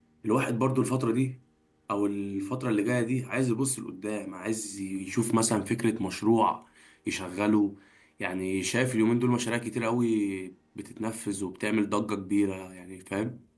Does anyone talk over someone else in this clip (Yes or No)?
No